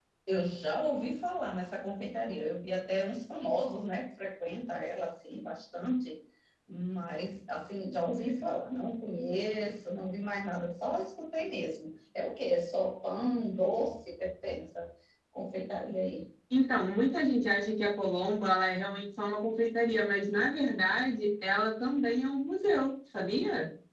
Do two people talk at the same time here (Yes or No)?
No